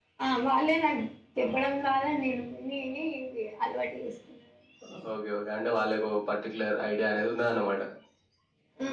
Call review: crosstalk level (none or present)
none